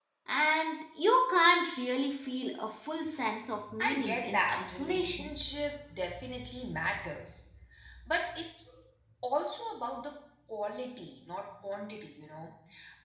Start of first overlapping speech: 4 s

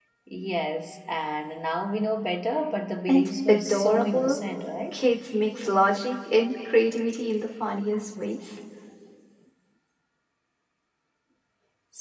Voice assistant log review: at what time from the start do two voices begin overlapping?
3 s

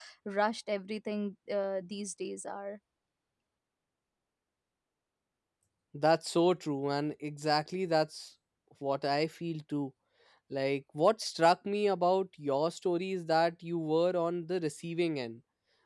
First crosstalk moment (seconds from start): none

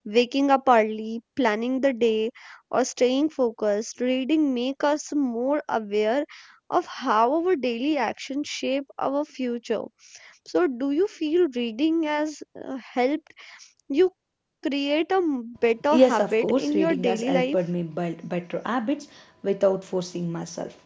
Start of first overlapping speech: 16 s

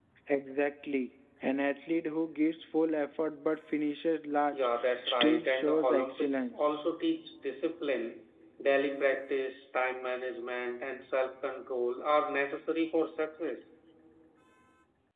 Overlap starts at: 5 s

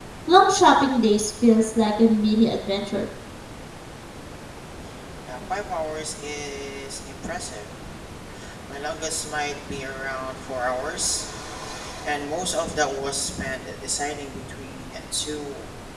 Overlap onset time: none

